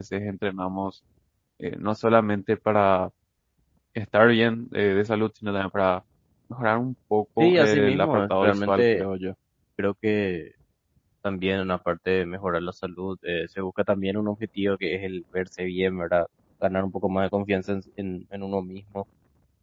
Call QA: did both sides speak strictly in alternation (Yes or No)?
No